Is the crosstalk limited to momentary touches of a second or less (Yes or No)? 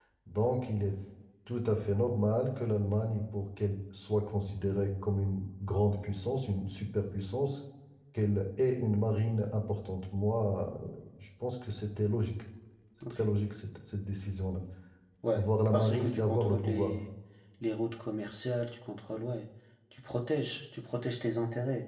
No